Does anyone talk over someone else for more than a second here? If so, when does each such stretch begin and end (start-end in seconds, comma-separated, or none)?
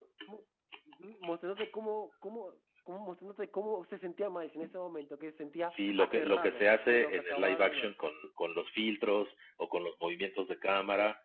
5.7-7.9